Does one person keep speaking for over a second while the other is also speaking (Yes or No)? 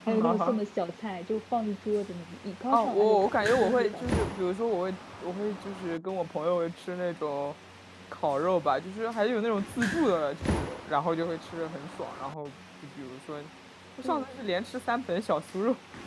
Yes